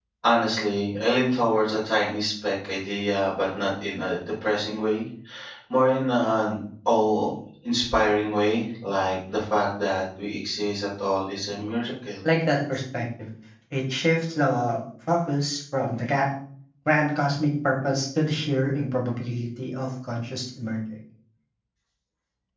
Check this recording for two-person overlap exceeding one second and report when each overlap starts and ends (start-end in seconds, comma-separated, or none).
none